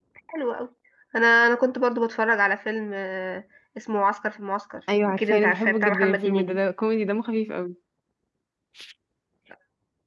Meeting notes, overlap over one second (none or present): present